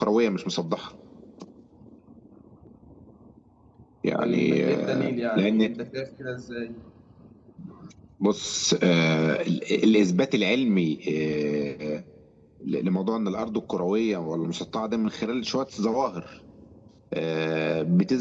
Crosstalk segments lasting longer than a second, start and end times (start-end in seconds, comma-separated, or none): 4.2-5.7